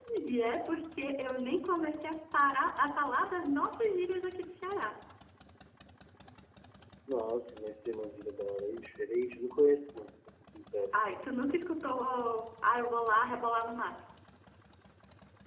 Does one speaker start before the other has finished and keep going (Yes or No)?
No